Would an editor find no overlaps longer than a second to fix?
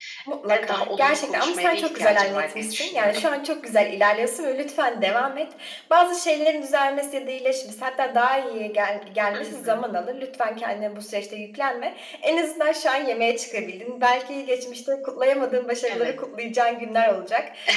No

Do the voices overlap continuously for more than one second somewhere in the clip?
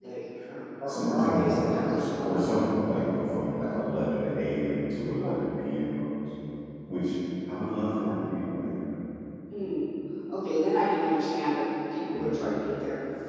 Yes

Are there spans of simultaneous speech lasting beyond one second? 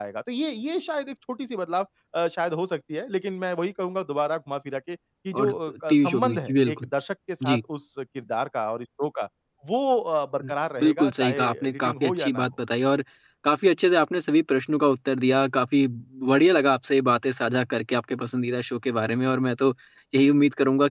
Yes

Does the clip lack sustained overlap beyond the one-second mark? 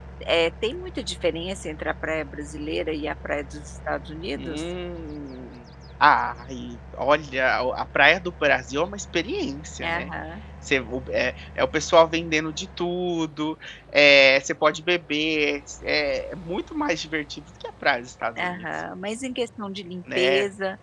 Yes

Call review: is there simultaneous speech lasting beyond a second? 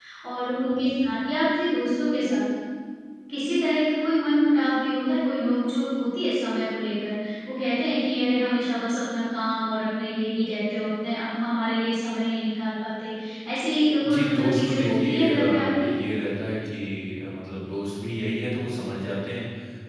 Yes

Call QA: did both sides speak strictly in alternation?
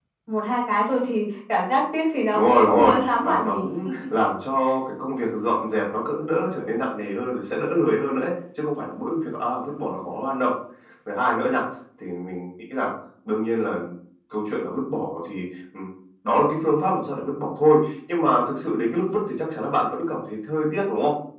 No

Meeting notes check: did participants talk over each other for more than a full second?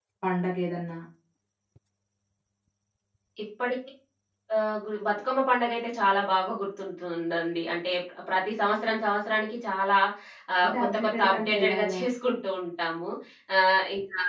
Yes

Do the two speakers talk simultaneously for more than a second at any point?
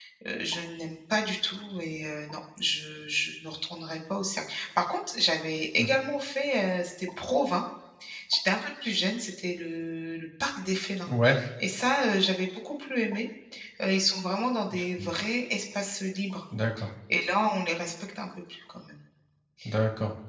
No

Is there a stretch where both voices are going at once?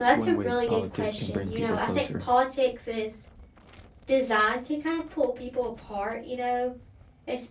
Yes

